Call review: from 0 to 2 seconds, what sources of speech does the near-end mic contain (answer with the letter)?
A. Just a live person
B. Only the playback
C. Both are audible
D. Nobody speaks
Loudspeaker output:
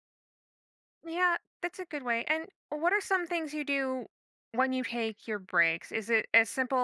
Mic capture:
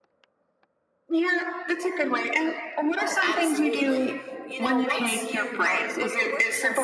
B